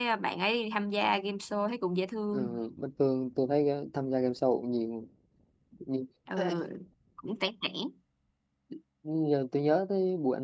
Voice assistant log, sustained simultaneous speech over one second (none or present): none